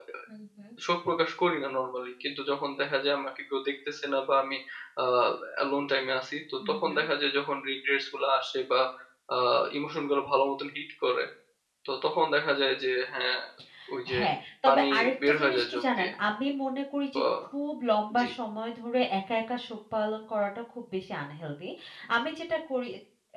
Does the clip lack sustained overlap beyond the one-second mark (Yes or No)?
No